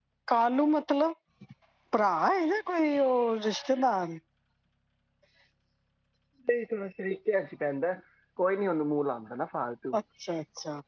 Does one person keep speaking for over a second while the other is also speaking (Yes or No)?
No